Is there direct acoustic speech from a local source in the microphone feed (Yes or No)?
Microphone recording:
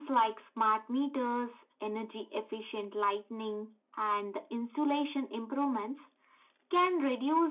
No